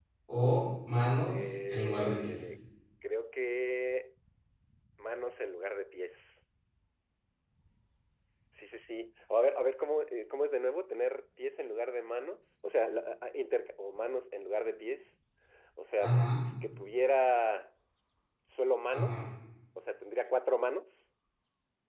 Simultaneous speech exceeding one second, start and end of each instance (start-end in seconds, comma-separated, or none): 1.3-2.5